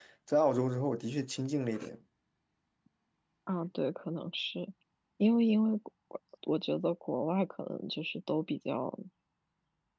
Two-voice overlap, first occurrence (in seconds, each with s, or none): none